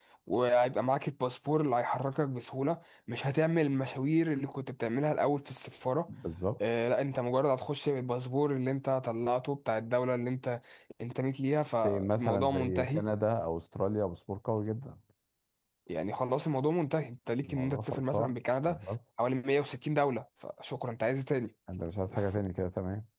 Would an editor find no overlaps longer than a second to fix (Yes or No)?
No